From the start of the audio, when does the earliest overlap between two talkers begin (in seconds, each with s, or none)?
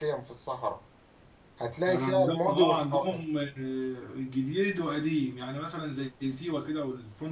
1.9 s